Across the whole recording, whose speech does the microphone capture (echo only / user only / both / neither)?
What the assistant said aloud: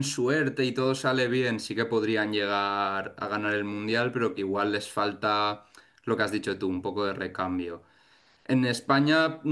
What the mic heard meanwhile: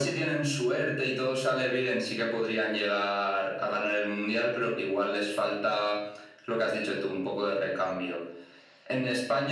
echo only